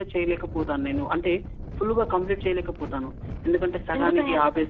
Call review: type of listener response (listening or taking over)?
listening